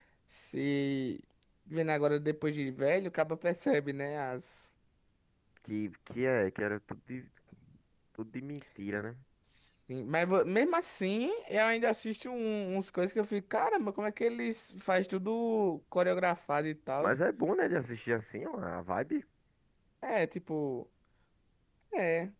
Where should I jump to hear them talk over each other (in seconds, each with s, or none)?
none